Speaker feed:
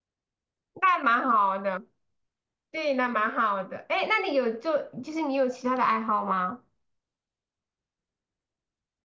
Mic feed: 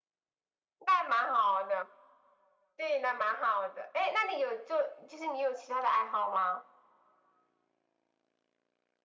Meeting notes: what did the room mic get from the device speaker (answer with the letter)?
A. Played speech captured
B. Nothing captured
A